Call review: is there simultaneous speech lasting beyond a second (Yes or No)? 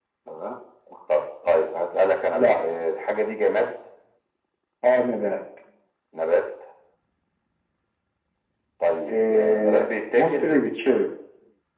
Yes